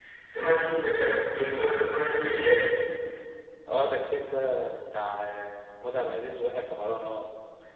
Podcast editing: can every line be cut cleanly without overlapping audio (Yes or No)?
Yes